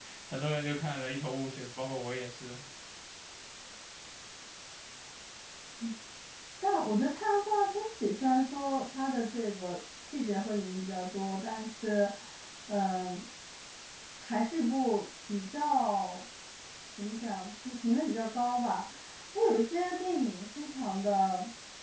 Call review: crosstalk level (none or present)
none